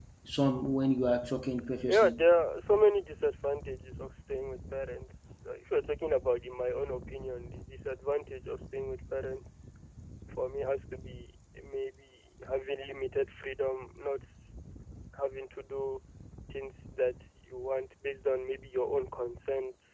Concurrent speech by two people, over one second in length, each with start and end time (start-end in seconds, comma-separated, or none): none